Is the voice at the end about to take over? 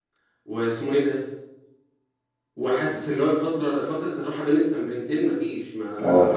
No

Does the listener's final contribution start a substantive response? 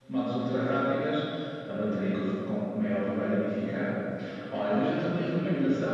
No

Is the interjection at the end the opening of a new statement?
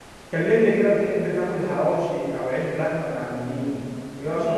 Yes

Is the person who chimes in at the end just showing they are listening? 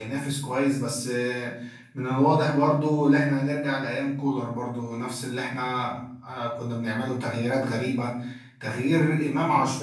Yes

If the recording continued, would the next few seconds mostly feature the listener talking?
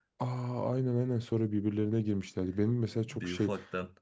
No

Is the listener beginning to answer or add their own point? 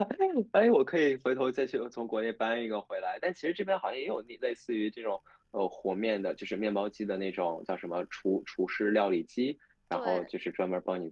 No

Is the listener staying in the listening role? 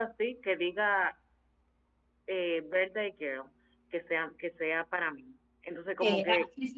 No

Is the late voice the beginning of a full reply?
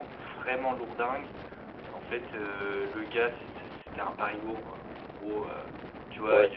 No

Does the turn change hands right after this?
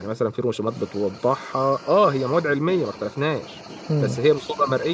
No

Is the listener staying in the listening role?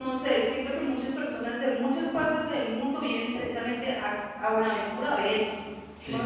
Yes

